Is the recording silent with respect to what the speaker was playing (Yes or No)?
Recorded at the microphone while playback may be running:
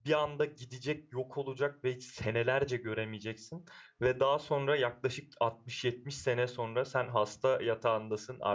Yes